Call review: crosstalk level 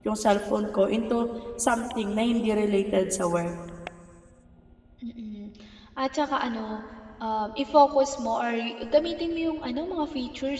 none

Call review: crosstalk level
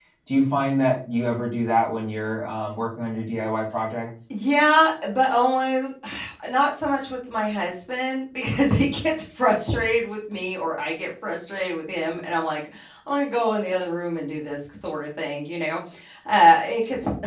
none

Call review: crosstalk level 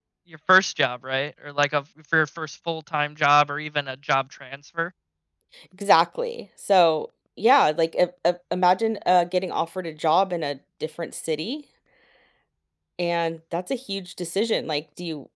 none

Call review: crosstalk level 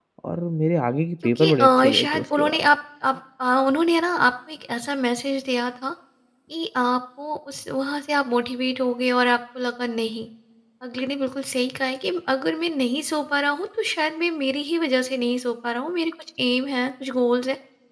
present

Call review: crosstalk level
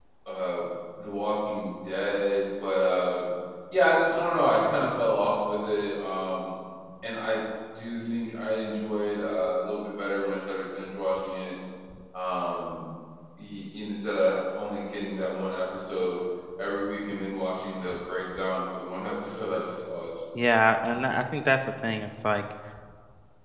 none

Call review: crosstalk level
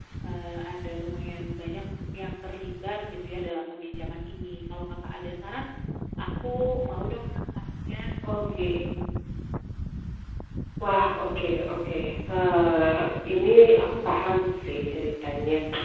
none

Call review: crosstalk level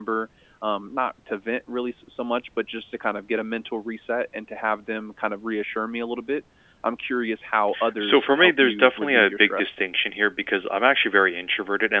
present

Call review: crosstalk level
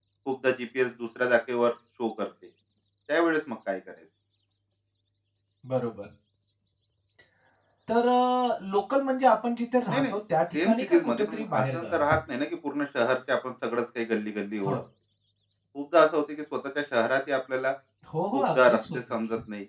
present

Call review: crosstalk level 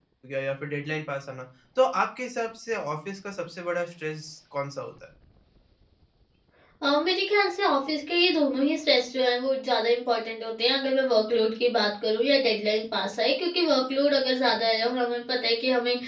none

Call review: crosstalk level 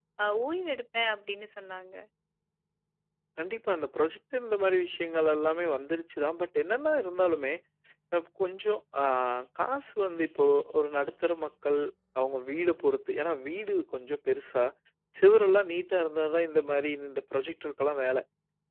none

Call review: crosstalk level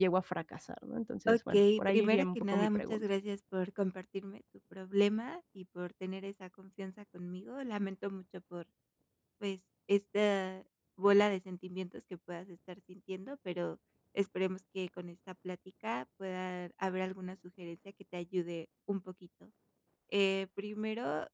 present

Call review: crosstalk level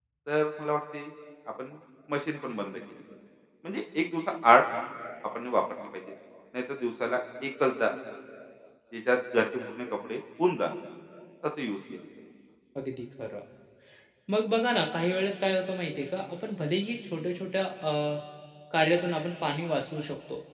none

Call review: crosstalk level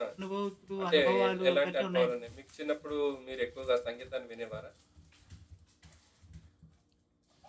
present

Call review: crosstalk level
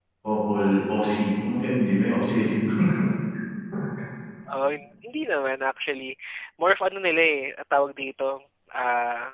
none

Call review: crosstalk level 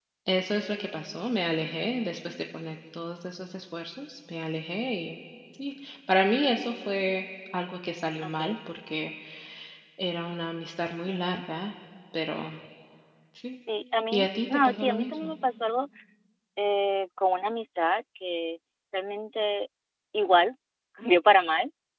present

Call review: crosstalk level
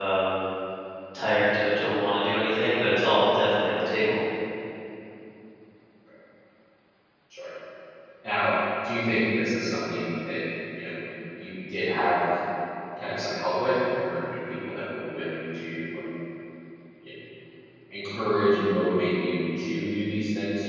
none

